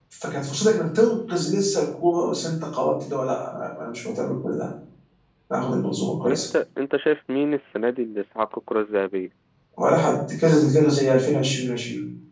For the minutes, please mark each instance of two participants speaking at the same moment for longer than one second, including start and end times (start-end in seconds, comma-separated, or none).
none